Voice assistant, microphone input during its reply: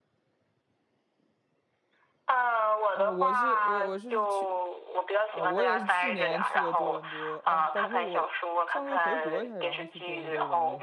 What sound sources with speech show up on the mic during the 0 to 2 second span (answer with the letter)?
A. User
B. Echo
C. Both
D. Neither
D